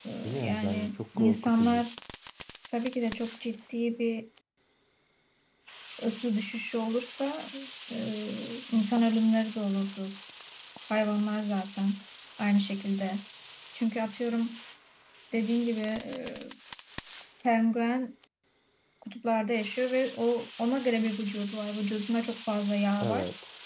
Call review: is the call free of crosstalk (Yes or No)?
No